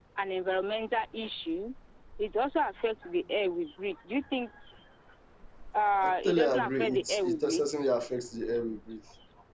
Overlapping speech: Yes, from 6.0 s

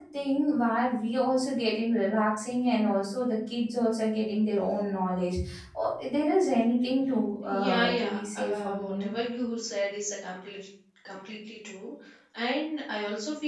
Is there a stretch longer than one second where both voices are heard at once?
Yes, from 7.5 s

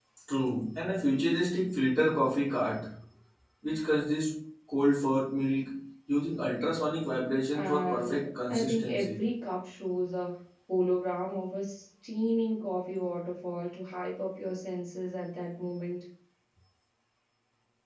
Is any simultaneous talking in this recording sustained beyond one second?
Yes, from 7.5 s

